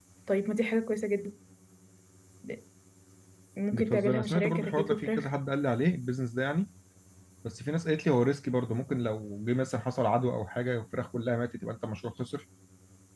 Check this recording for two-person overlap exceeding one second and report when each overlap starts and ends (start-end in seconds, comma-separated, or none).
3.7-5.3